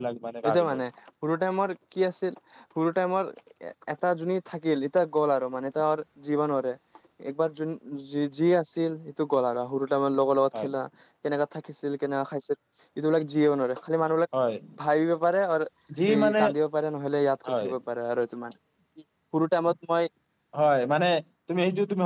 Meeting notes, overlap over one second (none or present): none